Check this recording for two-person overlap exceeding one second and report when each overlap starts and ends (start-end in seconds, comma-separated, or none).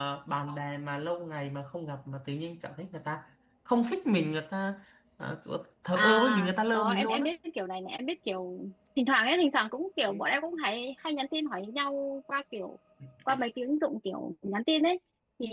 6.0-7.3